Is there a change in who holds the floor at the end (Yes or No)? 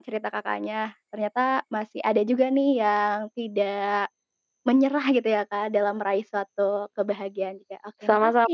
Yes